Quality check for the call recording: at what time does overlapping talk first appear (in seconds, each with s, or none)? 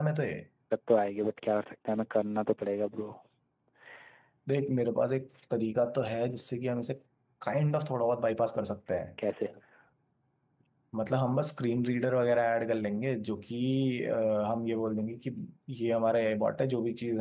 none